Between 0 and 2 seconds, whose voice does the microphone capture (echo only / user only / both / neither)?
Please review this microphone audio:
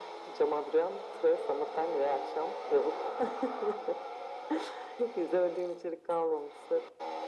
echo only